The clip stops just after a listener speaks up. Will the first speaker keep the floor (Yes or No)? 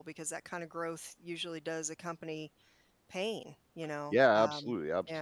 No